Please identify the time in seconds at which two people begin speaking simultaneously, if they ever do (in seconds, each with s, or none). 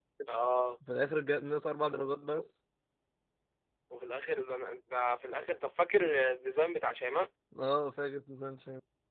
none